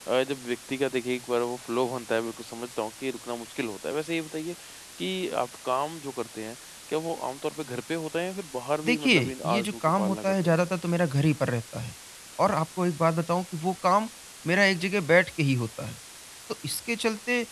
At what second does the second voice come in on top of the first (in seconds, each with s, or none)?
8.8 s